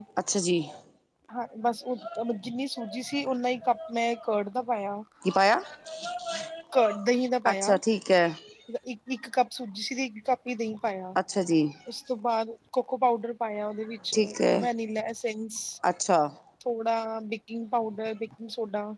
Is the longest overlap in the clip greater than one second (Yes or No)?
No